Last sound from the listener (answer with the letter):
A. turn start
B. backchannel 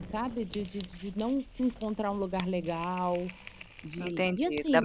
A